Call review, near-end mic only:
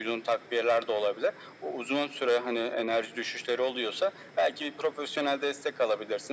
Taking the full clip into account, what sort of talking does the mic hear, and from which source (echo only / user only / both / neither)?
echo only